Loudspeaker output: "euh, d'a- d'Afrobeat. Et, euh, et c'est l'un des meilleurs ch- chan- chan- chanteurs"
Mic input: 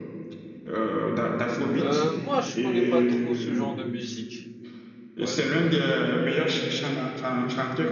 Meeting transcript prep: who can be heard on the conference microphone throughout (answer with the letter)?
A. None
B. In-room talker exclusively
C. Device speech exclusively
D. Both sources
D